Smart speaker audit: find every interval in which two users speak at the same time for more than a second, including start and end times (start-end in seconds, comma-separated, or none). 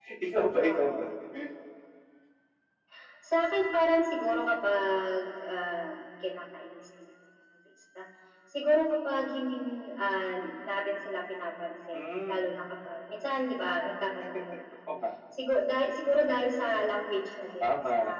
none